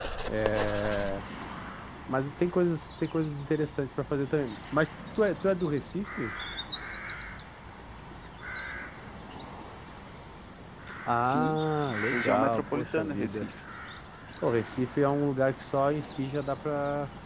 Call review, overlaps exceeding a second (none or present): present